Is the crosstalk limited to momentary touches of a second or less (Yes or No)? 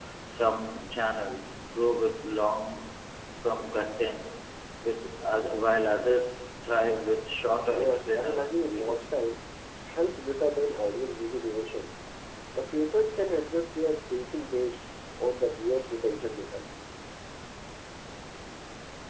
No